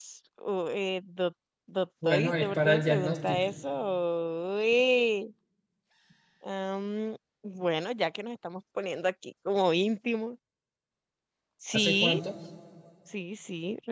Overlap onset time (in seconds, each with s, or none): 2.0 s